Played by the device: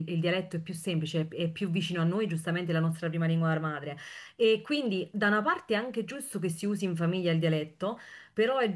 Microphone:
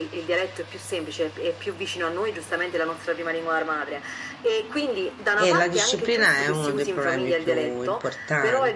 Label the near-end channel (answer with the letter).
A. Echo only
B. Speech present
B